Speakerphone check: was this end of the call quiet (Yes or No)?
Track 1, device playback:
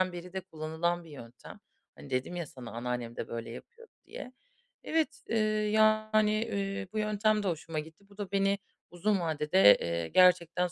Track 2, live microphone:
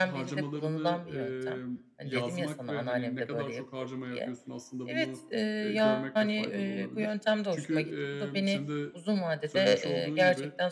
No